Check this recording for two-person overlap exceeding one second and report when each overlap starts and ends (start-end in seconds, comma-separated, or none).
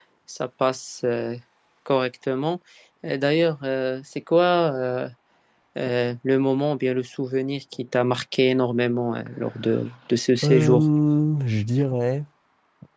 none